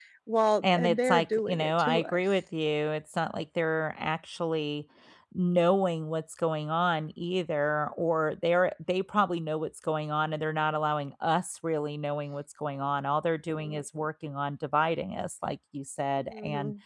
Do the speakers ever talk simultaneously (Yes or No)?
Yes